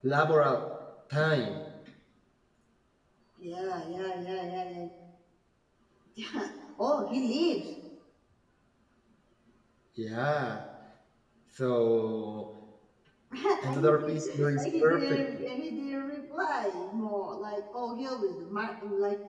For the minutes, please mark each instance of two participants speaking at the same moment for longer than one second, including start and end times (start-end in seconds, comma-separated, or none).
13.6-15.4